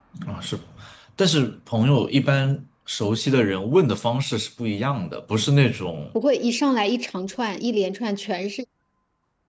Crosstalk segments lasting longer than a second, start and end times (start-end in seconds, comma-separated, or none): none